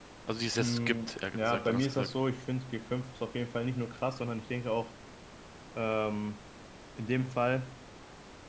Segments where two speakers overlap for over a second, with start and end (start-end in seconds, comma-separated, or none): 0.5-2.1